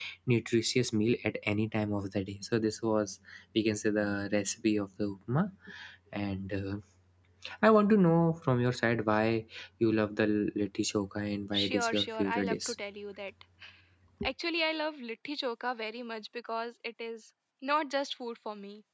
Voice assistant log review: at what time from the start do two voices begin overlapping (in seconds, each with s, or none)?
11.5 s